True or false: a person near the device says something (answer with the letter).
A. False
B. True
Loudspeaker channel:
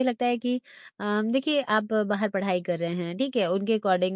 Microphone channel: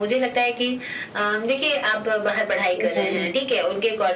B